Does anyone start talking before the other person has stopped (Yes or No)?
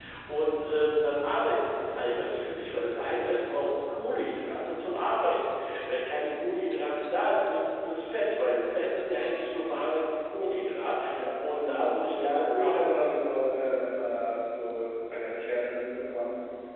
Yes